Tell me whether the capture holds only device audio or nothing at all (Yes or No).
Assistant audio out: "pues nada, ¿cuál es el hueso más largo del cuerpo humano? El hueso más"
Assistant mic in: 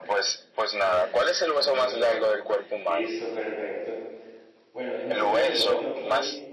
No